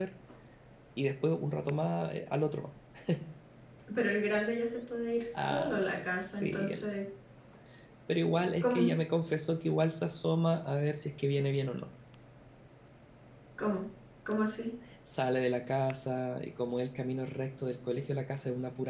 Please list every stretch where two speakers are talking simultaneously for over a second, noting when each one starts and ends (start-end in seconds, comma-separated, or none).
5.3-6.9